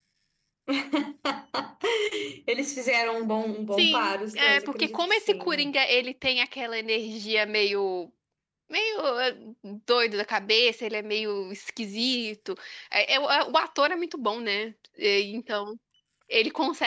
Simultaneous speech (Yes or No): Yes